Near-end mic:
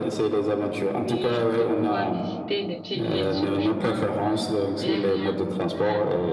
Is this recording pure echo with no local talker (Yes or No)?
No